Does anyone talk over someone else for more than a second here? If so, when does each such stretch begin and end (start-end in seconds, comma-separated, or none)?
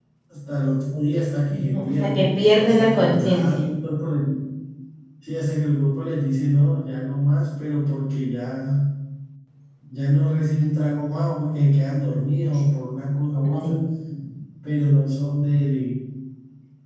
1.5-3.6